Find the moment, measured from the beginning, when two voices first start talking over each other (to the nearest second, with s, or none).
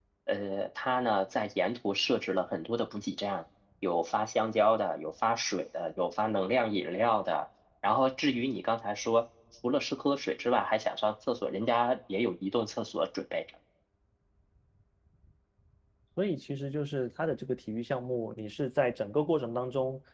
none